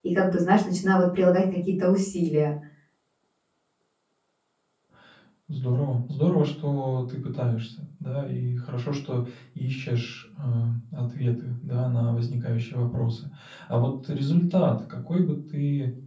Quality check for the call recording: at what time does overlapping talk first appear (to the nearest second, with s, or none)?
none